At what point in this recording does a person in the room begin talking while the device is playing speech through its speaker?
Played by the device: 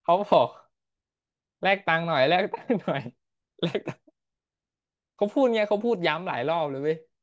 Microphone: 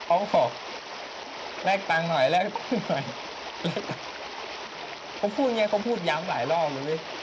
none

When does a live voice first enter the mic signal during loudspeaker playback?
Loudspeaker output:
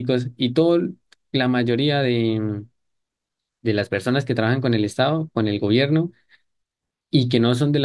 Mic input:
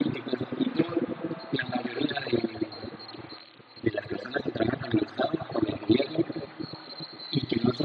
none

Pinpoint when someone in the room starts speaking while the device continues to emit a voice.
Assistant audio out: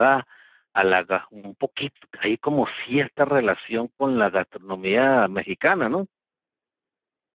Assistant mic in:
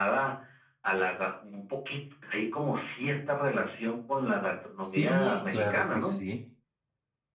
4.8 s

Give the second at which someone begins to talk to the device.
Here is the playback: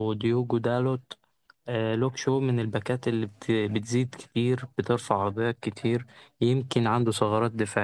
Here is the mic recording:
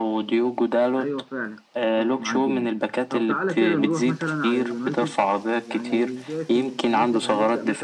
1.0 s

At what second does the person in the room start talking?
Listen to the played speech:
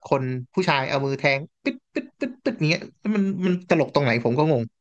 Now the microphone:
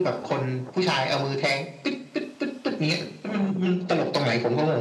none

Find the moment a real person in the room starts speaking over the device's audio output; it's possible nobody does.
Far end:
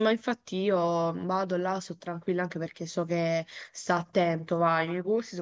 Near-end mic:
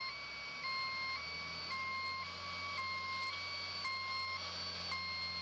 none

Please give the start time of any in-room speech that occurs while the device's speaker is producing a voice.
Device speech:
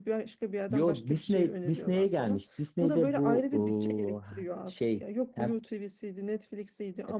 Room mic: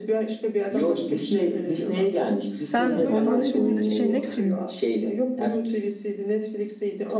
2.6 s

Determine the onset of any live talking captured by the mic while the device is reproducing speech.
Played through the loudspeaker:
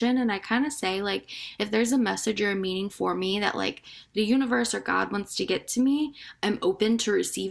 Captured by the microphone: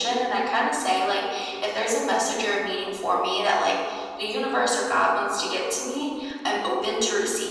none

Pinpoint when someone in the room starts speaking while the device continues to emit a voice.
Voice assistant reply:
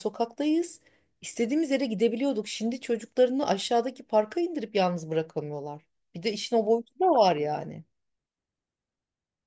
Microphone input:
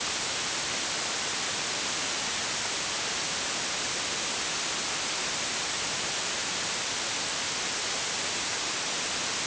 none

